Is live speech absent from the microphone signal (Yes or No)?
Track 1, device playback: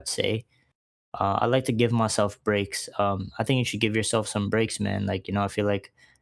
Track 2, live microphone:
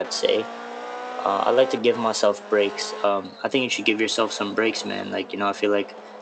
Yes